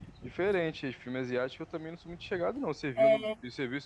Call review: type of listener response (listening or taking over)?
listening